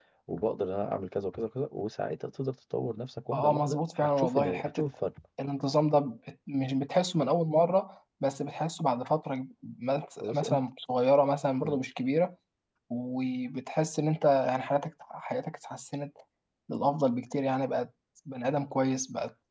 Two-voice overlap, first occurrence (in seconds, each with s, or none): 3.3 s